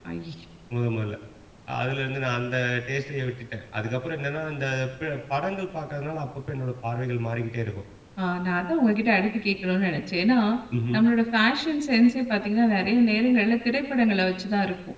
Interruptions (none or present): none